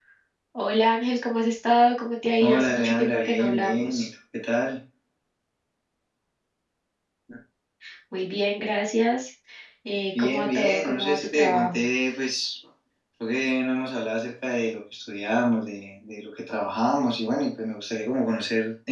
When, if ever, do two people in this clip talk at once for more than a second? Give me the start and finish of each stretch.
2.4-4.1, 10.2-11.9

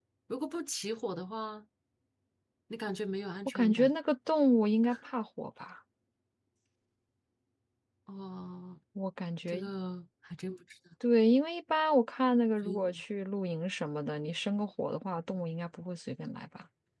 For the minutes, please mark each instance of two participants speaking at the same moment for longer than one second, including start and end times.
none

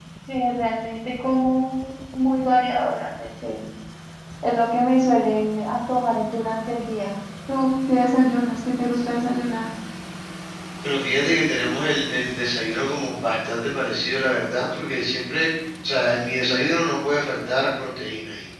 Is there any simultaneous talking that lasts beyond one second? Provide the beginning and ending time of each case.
none

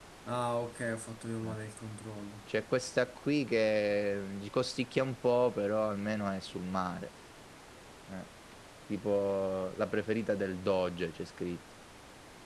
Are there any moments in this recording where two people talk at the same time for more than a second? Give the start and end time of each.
none

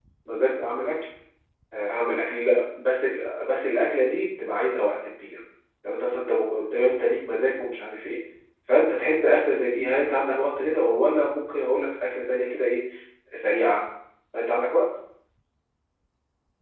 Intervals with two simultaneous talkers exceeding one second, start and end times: none

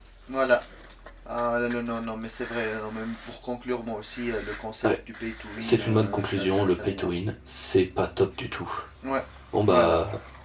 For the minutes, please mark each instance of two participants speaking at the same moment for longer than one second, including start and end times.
5.6-7.1

